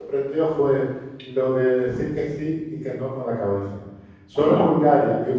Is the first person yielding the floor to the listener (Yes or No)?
No